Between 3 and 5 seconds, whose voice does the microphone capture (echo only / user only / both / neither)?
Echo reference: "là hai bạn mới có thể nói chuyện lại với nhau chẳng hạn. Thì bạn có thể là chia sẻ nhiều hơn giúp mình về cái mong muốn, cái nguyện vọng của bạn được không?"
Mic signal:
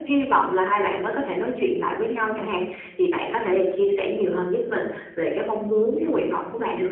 echo only